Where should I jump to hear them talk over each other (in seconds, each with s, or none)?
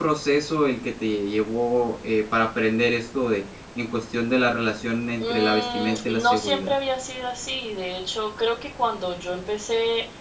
5.2 s